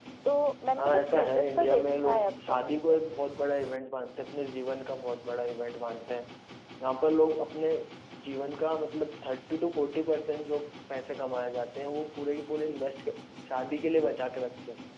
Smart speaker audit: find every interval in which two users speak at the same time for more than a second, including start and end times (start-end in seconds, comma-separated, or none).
0.8-3.0